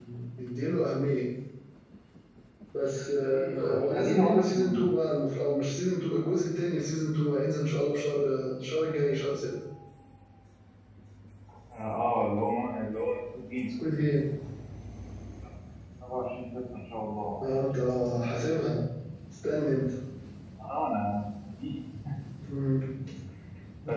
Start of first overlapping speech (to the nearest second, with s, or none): 4 s